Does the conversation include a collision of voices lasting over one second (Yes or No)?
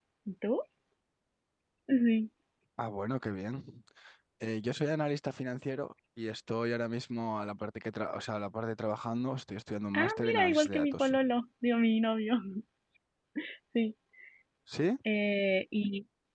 Yes